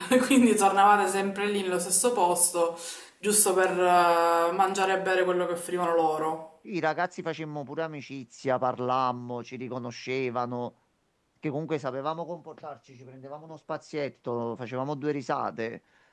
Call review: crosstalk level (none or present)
none